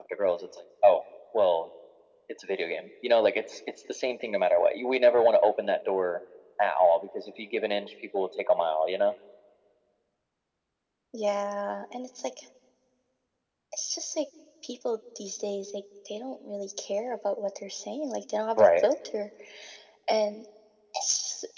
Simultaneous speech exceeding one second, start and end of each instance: none

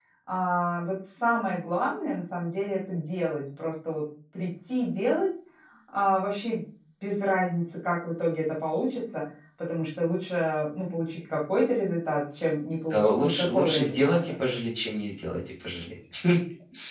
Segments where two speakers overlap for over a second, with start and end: 12.9-14.2

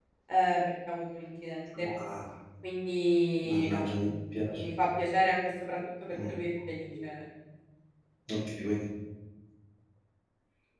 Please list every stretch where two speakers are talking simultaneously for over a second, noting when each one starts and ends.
none

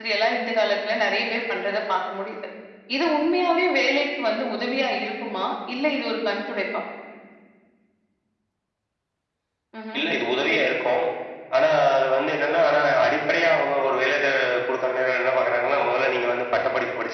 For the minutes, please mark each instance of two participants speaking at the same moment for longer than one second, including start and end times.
none

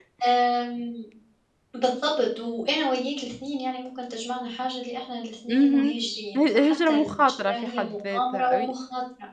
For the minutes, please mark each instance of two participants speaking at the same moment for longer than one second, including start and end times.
6.4-8.7

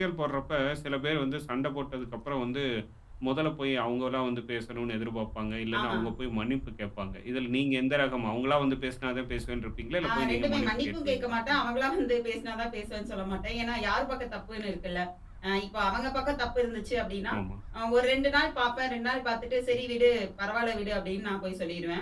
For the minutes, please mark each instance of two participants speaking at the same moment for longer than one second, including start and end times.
10.1-11.7

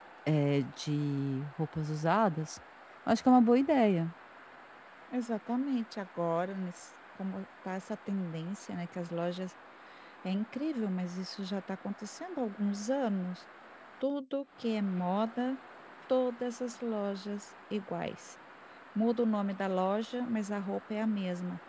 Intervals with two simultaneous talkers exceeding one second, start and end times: none

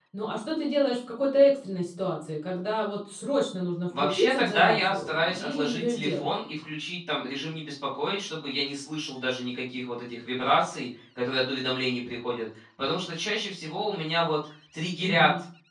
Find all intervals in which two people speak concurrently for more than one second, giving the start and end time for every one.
4.0-6.3

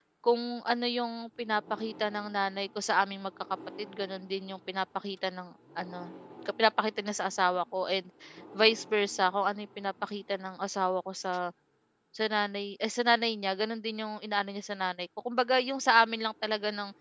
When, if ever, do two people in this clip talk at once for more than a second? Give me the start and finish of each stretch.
none

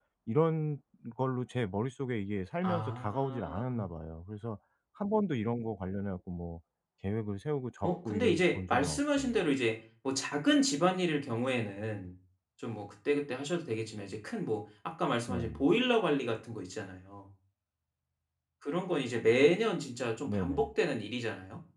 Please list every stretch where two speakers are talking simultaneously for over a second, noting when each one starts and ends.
2.6-3.9, 7.8-9.3

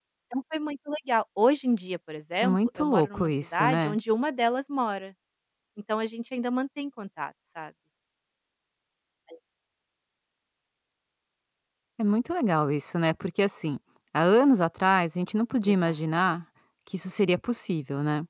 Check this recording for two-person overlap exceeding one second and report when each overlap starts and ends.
2.4-4.0

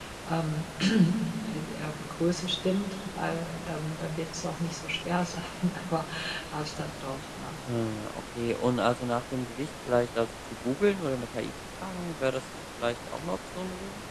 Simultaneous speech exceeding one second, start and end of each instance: none

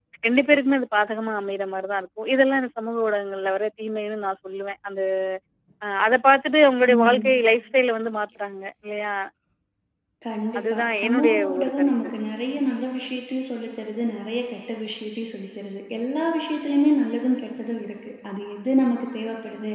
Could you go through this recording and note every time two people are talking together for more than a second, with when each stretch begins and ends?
10.6-11.9

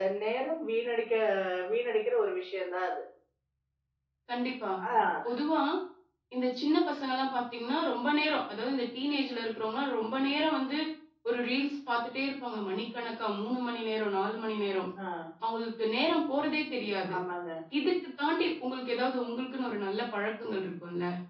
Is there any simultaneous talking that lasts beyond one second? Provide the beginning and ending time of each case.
none

